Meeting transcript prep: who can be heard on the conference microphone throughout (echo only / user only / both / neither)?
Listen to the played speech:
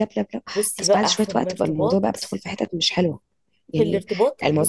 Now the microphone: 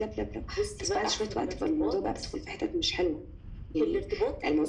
echo only